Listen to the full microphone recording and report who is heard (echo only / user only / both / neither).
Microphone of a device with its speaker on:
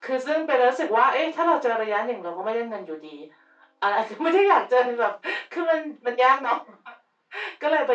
echo only